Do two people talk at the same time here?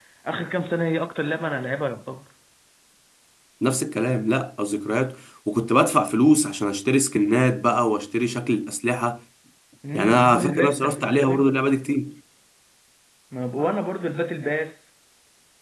Yes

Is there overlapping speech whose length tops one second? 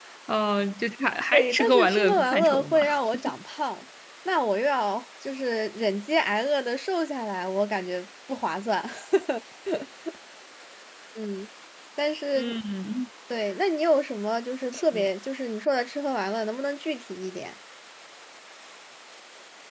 Yes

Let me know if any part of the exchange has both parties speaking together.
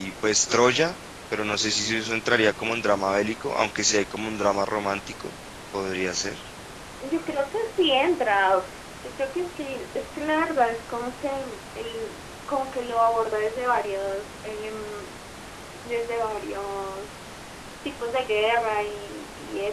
No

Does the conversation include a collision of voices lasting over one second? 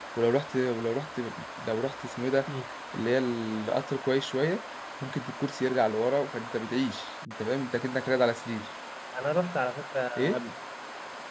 No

